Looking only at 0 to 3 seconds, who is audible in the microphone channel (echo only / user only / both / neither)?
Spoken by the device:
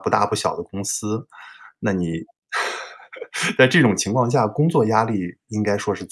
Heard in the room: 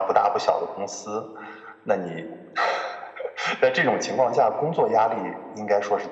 echo only